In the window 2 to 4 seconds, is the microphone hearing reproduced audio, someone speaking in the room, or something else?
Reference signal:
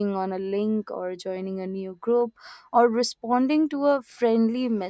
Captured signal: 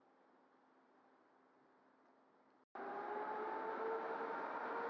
neither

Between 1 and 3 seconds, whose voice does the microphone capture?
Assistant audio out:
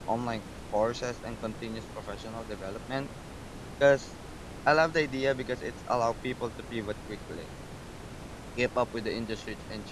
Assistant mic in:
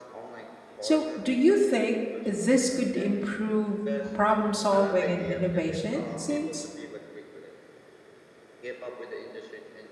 both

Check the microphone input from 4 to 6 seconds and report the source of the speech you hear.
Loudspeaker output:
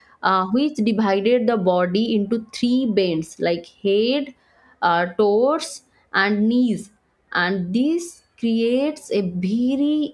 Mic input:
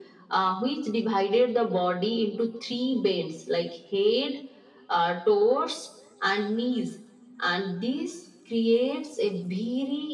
echo only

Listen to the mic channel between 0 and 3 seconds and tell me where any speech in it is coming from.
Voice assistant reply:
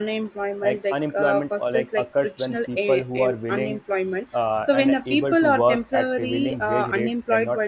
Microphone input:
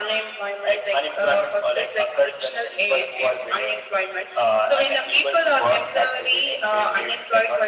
echo only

